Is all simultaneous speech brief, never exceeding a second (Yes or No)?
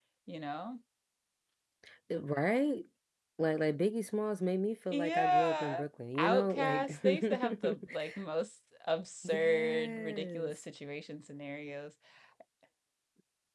No